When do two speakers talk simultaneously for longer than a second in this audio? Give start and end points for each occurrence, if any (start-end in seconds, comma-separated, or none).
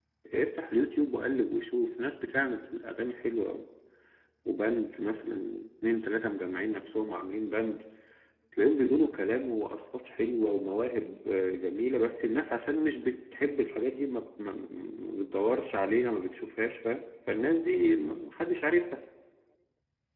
none